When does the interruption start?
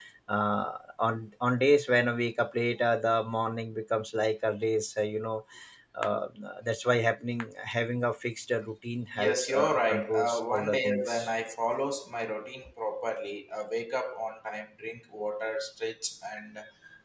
9.2 s

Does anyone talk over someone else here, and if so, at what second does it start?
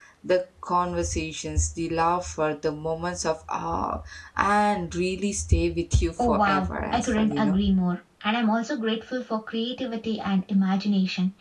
6.2 s

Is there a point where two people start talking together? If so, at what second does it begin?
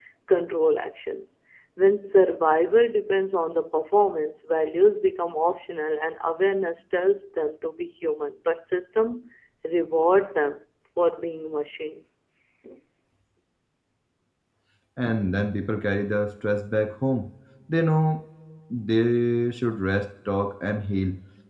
none

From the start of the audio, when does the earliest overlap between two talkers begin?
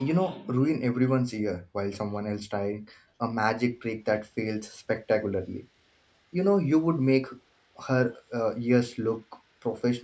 none

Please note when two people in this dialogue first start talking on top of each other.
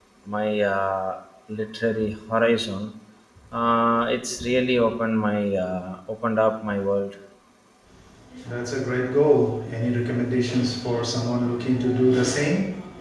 none

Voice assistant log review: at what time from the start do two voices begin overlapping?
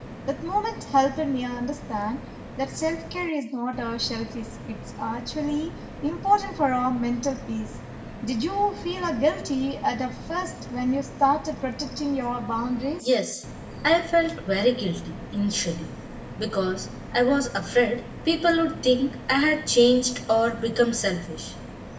none

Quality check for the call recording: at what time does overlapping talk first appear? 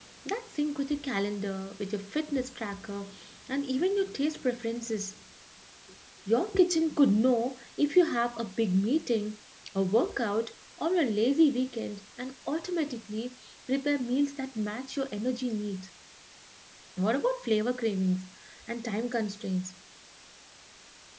none

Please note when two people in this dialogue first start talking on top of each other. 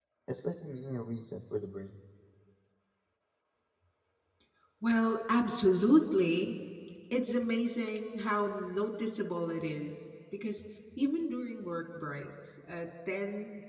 none

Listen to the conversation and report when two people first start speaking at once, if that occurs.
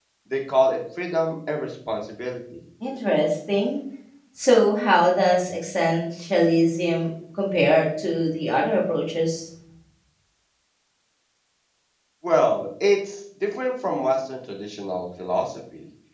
none

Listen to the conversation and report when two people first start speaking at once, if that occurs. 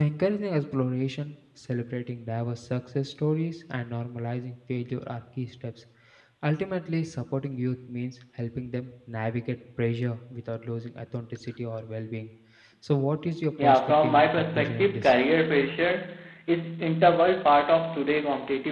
13.6 s

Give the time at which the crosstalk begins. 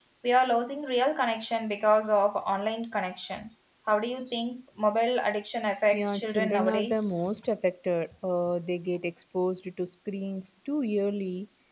5.9 s

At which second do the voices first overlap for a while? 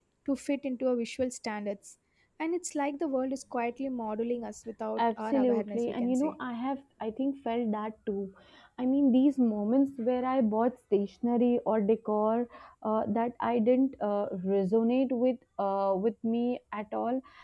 5.0 s

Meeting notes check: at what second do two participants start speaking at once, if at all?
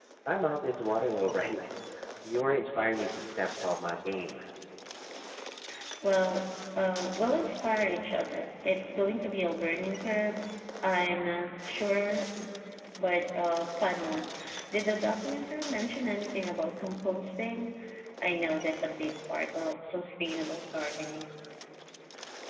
none

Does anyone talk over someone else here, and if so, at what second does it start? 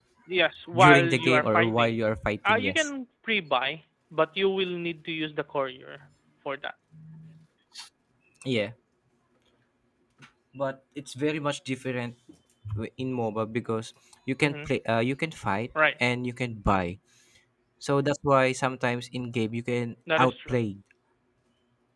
0.7 s

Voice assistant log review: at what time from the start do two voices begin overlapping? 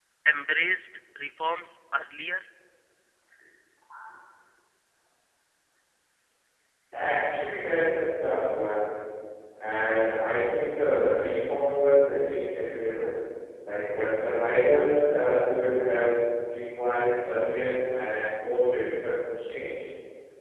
none

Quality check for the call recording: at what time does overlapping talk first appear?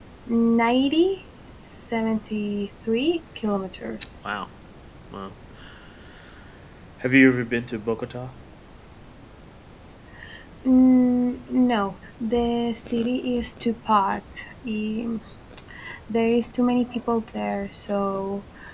none

